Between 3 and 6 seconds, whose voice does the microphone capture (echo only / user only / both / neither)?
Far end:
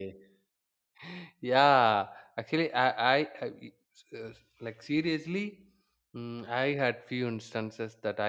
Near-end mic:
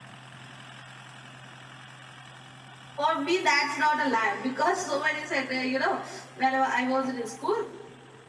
user only